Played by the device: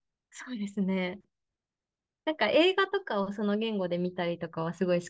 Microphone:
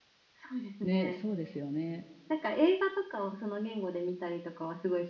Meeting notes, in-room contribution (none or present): present